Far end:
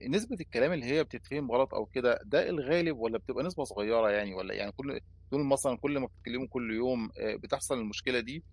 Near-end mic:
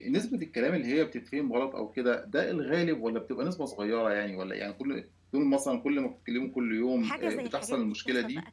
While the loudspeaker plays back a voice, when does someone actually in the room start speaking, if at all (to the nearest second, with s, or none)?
7 s